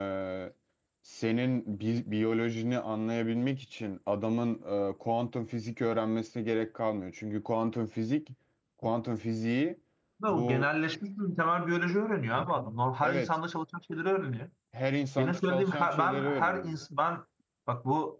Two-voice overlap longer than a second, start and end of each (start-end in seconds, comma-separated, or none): 15.2-16.8